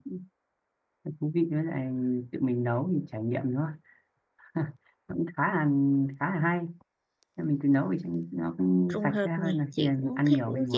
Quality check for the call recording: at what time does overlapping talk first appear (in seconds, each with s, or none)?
8.9 s